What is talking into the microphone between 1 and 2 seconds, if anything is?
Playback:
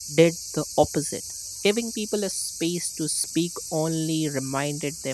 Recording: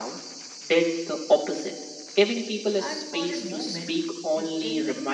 echo only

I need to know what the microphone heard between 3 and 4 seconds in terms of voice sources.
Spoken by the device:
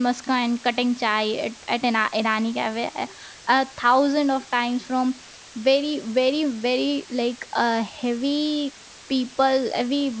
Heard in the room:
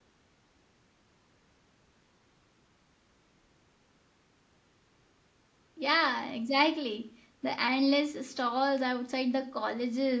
neither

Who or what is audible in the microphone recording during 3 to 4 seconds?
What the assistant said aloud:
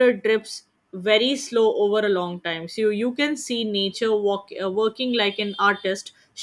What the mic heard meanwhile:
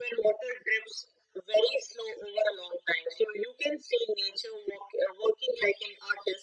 echo only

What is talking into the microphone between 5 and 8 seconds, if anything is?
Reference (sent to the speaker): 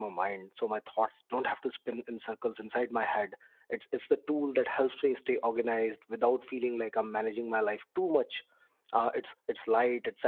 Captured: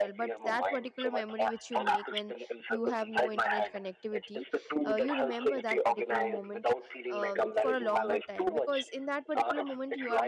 both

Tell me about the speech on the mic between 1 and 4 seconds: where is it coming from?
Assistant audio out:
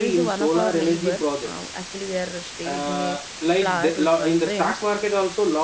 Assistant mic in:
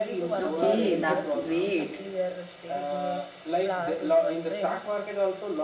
both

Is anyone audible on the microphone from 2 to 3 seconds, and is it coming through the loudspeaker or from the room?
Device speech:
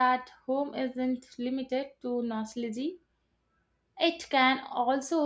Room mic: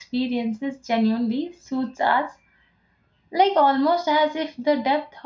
user only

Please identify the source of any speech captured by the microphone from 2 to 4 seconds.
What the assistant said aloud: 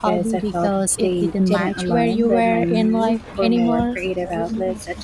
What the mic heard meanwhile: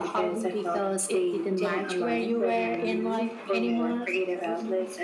echo only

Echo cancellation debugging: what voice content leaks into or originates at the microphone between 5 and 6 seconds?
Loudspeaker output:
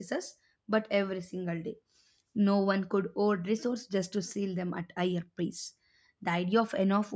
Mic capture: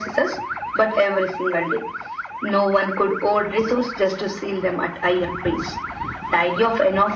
echo only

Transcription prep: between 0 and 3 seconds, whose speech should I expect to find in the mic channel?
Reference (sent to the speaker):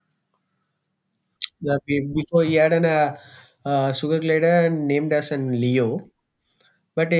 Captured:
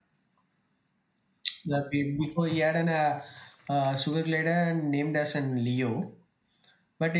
echo only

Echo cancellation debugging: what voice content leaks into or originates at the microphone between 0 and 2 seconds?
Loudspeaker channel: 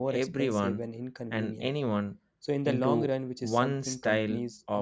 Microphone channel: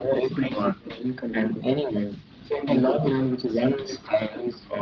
echo only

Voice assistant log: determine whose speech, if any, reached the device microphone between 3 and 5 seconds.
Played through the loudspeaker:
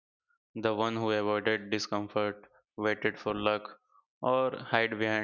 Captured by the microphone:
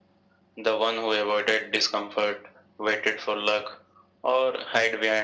echo only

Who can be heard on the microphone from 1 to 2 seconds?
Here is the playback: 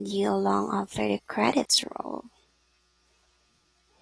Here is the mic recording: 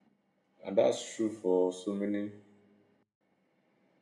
user only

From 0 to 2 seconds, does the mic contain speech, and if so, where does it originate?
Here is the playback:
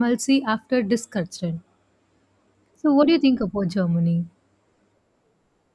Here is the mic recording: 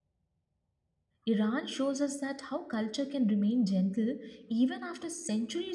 user only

